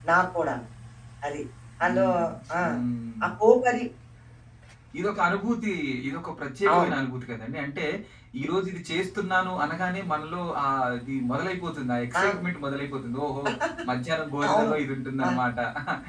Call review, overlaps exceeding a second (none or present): none